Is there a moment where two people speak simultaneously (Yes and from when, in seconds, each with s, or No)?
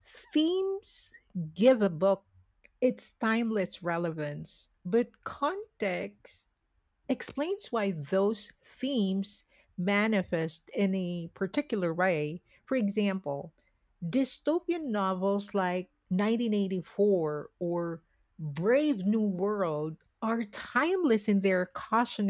No